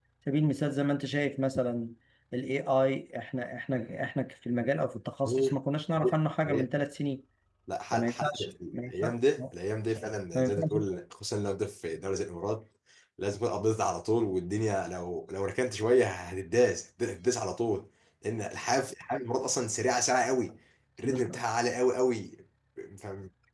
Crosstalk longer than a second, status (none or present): present